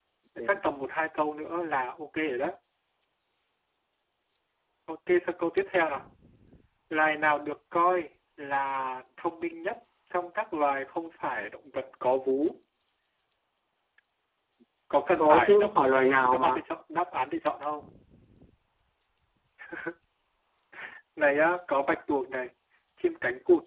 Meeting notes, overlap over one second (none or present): present